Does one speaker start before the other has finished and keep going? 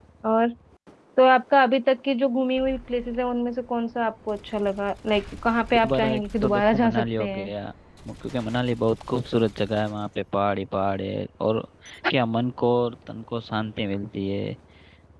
Yes, from 5.7 s

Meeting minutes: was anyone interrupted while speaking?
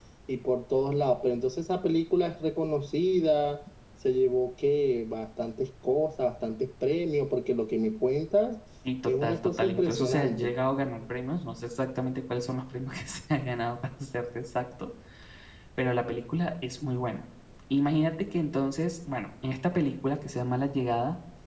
Yes, from 9.1 s

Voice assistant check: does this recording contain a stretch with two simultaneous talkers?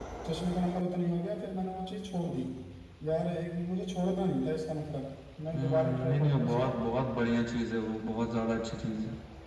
Yes, from 5.5 s

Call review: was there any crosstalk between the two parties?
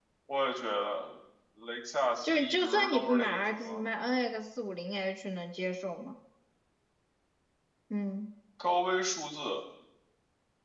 Yes, from 2.2 s

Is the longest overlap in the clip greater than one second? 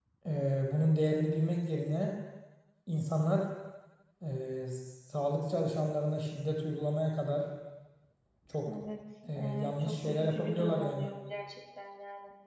Yes, from 9.4 s

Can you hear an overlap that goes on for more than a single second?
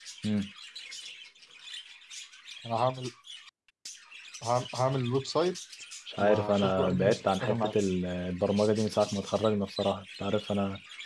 Yes, from 6.2 s

